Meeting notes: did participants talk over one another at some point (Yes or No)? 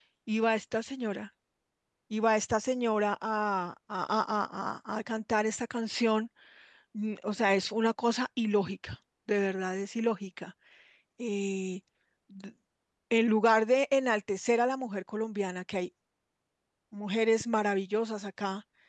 No